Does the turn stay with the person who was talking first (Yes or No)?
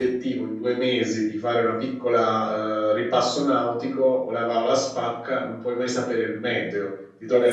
No